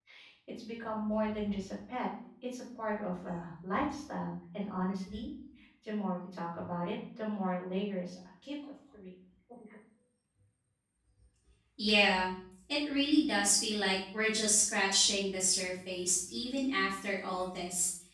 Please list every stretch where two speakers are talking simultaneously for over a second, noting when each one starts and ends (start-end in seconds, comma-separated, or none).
none